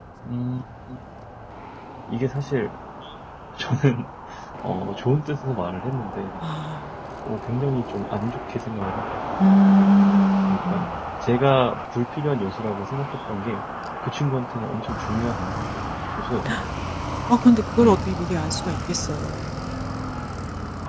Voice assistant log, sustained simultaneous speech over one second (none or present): none